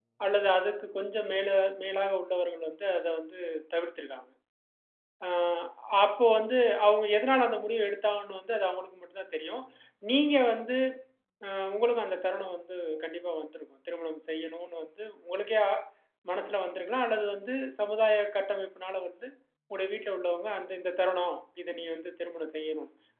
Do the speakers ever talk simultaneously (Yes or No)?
No